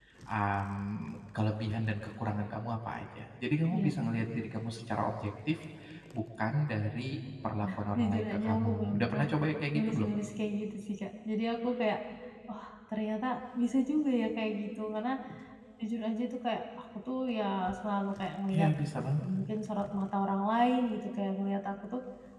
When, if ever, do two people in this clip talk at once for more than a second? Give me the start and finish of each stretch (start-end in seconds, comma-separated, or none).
7.6-9.3